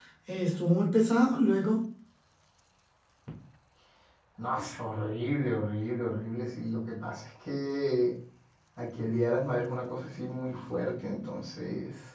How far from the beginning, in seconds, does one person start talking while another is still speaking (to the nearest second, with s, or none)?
none